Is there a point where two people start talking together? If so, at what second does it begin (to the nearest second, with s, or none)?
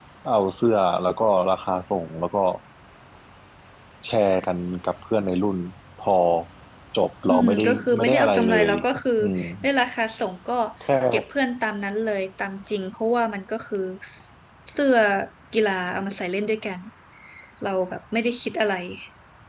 7 s